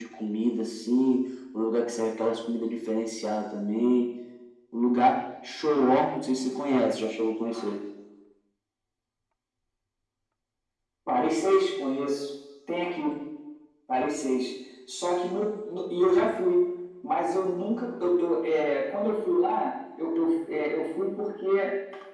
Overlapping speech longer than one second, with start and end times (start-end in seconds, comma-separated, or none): none